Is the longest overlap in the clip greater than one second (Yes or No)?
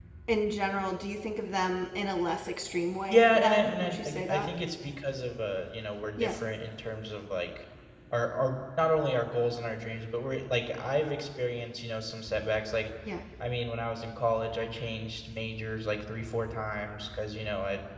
Yes